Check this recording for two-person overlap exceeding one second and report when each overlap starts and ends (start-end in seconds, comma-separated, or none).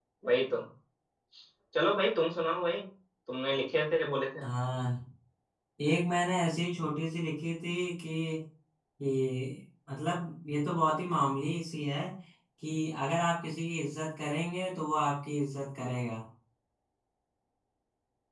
none